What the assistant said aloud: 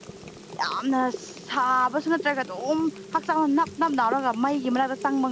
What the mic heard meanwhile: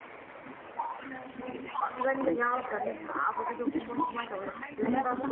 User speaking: Yes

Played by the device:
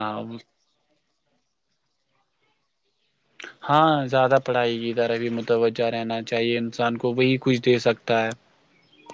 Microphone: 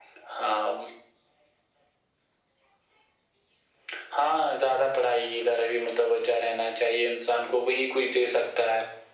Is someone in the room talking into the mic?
No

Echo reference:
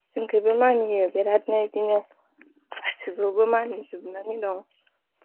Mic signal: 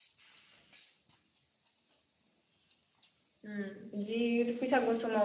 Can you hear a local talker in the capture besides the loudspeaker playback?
Yes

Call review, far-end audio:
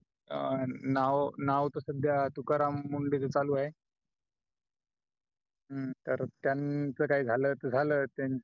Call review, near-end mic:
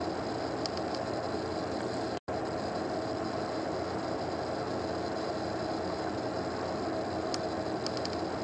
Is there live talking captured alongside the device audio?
No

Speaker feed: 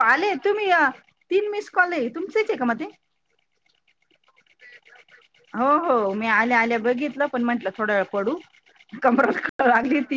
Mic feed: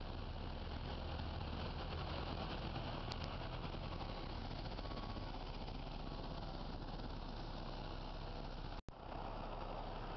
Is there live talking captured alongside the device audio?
No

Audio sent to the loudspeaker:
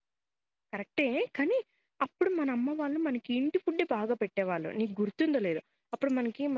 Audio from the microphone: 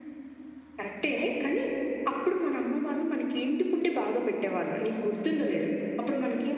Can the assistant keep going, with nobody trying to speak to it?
Yes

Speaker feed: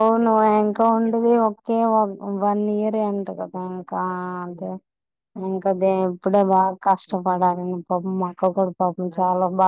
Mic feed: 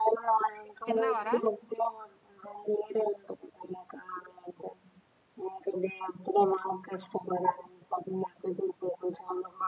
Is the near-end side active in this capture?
Yes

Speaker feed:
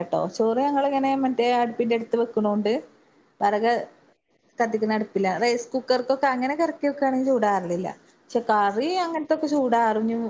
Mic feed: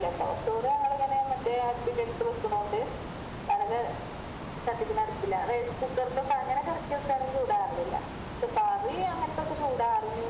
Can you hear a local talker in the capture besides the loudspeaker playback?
No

